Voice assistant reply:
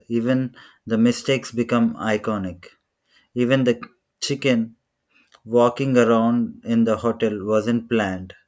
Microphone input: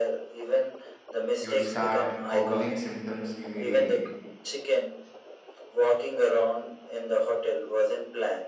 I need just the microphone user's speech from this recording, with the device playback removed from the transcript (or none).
You'd start googling symptoms immediately.